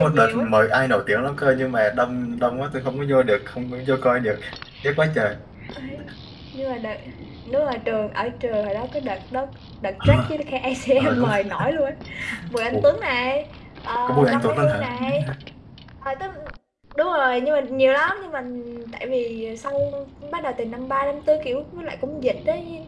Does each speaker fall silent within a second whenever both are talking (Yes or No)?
No